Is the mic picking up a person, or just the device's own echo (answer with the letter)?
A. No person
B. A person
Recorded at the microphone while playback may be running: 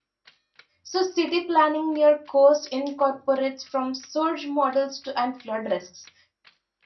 B